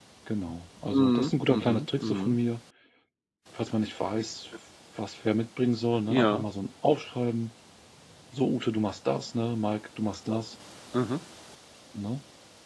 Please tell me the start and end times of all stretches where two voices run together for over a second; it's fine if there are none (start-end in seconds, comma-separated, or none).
0.9-2.4